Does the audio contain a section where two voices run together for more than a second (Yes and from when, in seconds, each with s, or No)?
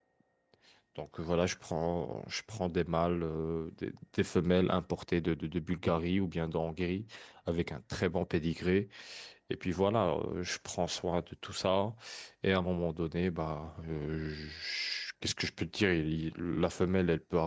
No